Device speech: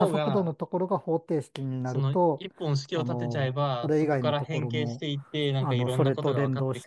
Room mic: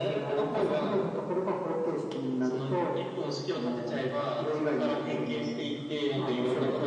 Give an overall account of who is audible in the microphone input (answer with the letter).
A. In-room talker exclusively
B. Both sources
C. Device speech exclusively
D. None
C